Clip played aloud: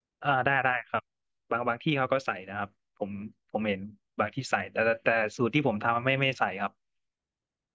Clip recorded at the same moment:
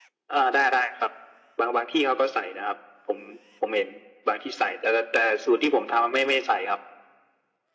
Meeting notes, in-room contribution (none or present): none